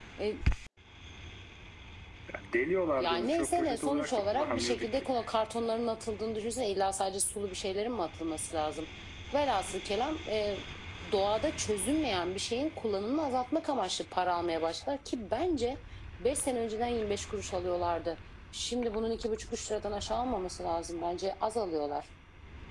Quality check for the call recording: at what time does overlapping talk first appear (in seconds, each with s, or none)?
3.0 s